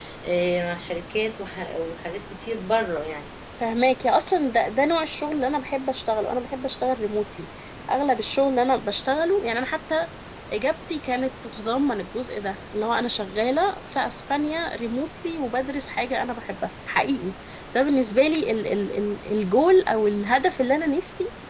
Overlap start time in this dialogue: none

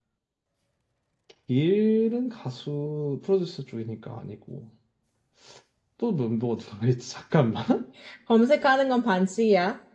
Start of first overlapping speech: none

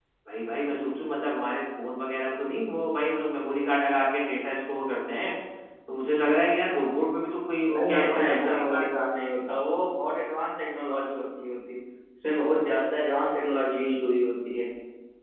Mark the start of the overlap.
7.6 s

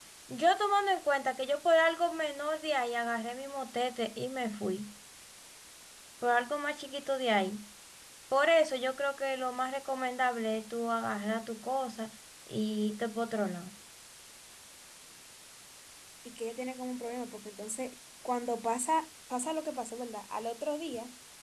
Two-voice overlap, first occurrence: none

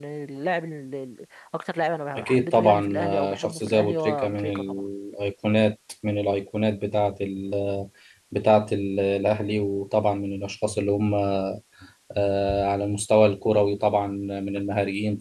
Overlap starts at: 2.2 s

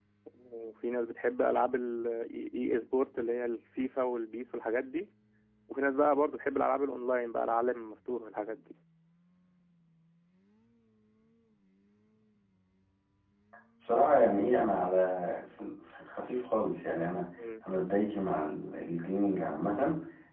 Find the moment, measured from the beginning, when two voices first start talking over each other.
none

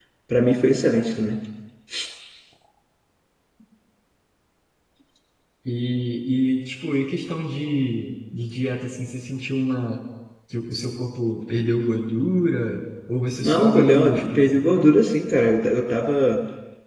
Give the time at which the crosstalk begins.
13.4 s

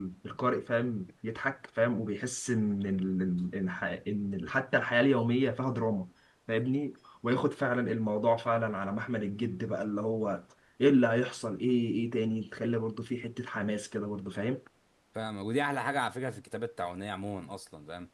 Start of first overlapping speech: none

